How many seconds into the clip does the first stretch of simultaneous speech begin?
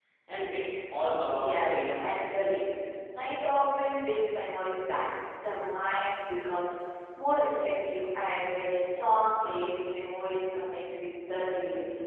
1.3 s

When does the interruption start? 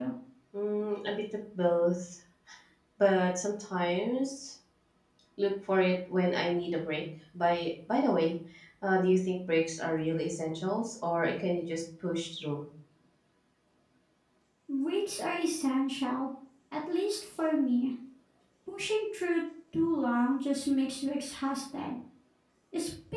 none

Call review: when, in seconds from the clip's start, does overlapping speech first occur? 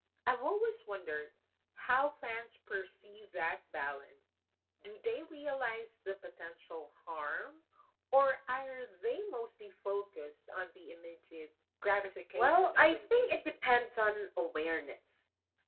12.4 s

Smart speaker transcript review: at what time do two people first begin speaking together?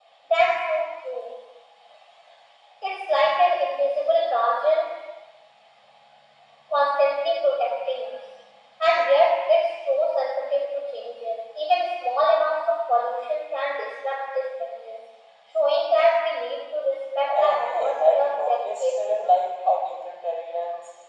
17.2 s

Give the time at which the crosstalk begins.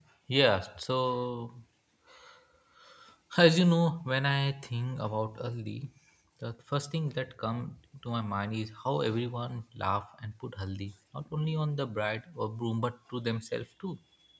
none

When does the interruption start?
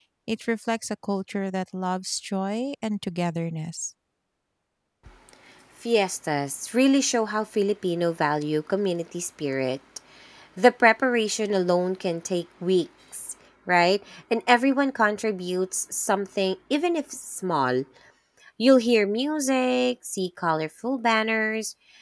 none

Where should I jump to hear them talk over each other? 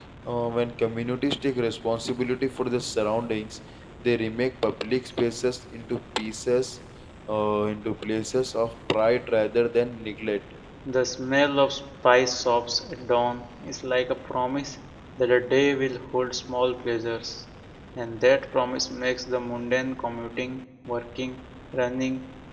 none

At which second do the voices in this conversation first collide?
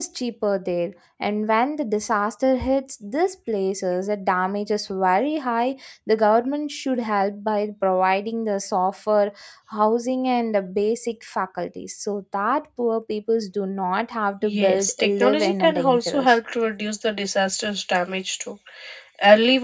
14.4 s

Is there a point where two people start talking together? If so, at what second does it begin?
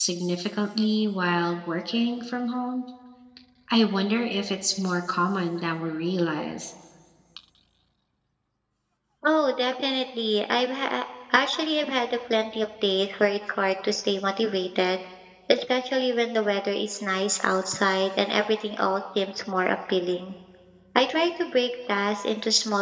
none

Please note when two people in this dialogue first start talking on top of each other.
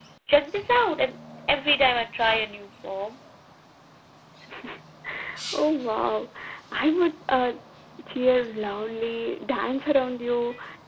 none

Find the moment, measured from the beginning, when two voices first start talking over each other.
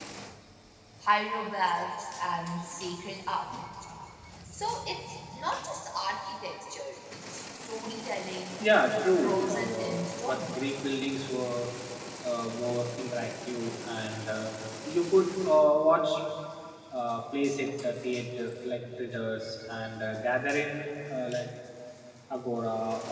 9.2 s

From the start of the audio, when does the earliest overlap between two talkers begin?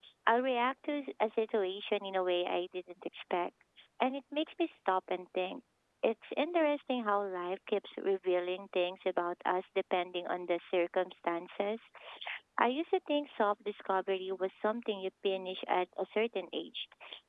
none

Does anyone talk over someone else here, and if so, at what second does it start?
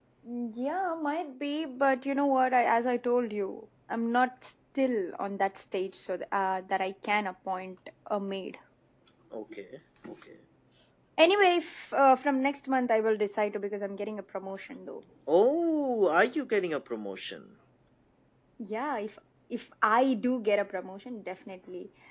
none

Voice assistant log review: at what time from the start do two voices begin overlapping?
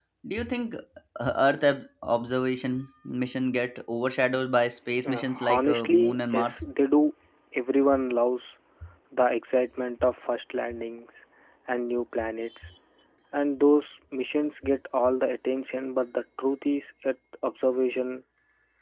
5.0 s

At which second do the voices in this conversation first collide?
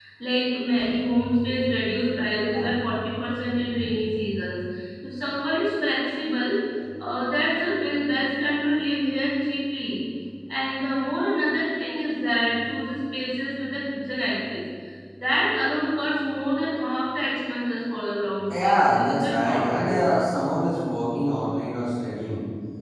18.5 s

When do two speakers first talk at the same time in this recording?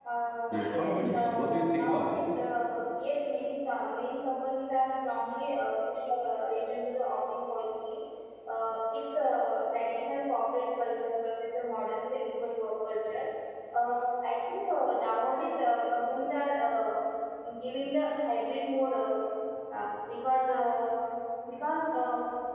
0.5 s

